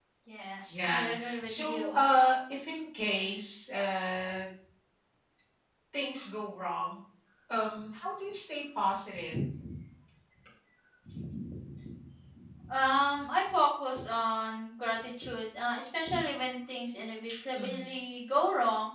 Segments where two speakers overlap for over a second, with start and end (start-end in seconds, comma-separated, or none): 0.7-2.0